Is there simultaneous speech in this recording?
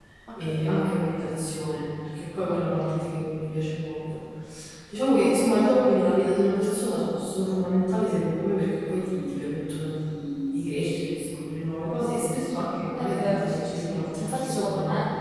Yes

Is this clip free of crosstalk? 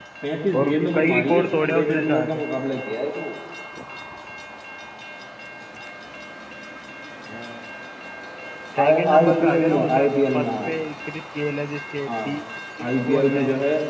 No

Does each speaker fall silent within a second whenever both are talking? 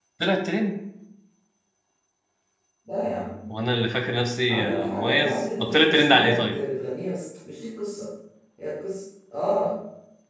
No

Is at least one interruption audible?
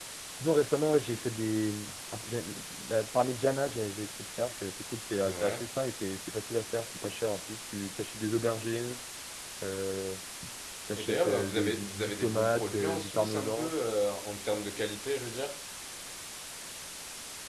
Yes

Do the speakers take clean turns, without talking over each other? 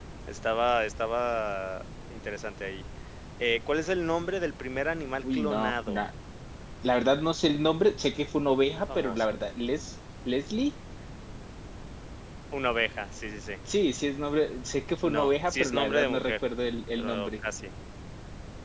No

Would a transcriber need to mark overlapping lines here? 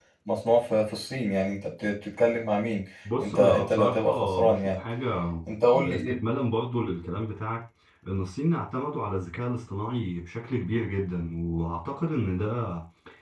Yes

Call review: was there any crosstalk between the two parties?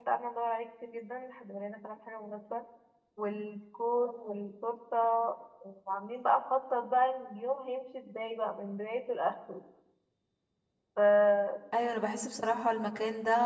No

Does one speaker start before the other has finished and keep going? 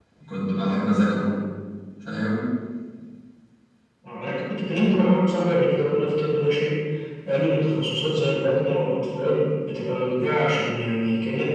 No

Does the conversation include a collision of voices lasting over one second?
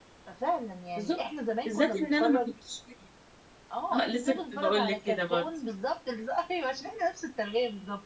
Yes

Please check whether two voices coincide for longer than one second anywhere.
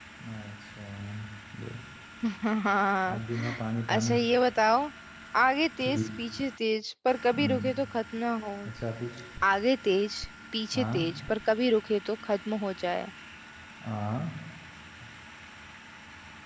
No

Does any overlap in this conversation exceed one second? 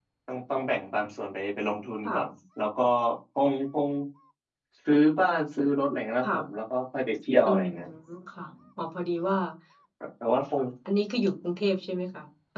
No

